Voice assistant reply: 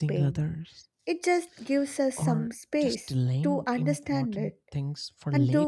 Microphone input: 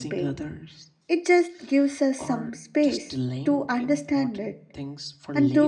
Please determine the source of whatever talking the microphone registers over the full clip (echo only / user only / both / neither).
echo only